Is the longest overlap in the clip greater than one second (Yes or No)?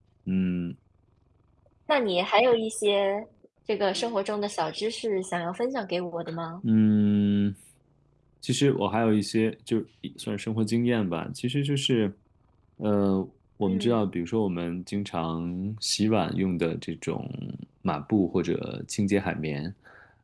No